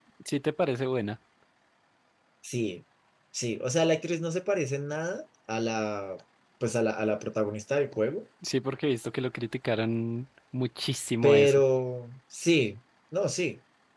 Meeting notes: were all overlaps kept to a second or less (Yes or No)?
Yes